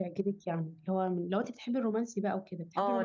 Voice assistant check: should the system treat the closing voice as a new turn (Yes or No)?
Yes